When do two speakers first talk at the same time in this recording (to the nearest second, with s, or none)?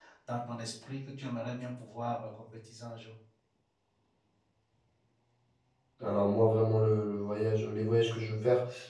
none